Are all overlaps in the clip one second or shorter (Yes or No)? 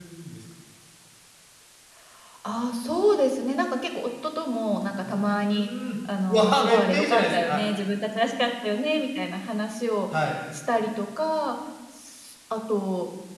No